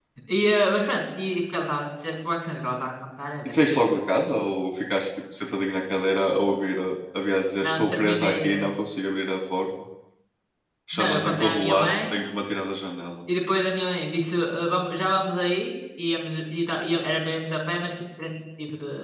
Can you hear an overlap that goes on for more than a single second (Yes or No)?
Yes